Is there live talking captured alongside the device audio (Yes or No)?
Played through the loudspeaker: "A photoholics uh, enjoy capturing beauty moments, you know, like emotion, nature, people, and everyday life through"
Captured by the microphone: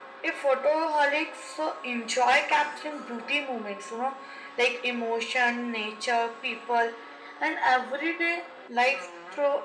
No